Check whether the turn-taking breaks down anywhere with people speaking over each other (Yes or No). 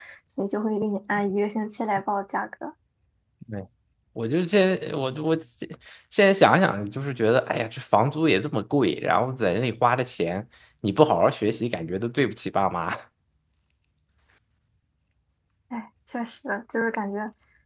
No